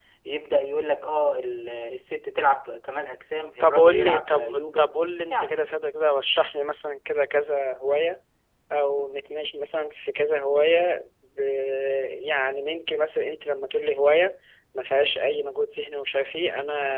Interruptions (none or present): present